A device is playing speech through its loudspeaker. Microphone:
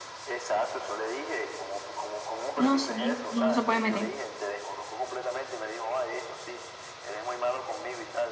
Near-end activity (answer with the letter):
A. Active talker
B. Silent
A